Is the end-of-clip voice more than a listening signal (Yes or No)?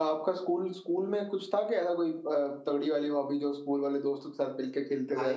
Yes